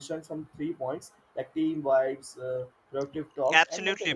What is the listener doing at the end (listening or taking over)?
taking over